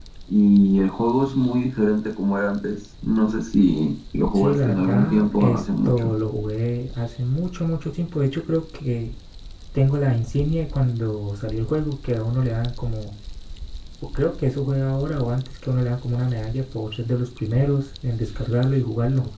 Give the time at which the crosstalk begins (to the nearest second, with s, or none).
4 s